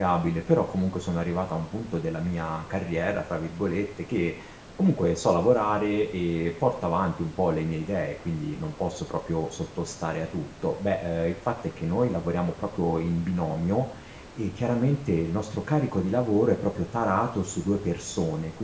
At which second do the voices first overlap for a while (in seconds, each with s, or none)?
none